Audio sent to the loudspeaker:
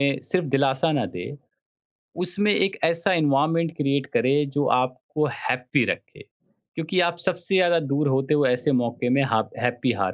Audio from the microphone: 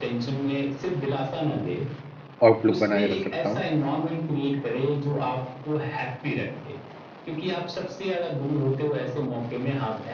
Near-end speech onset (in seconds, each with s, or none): 2.5 s